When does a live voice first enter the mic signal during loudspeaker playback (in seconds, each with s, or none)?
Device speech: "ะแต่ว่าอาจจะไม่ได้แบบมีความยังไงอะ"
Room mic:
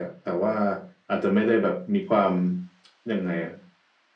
none